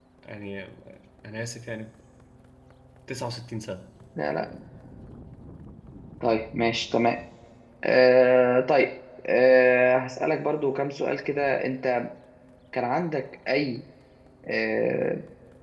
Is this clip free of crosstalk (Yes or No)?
Yes